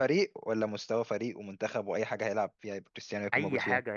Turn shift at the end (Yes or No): Yes